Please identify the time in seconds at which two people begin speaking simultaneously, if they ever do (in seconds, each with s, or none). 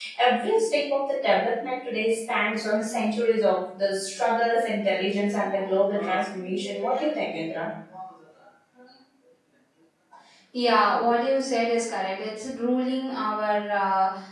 none